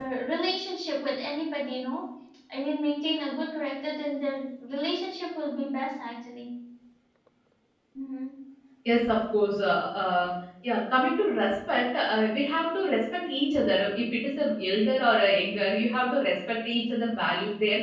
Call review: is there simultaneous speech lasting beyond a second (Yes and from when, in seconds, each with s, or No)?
No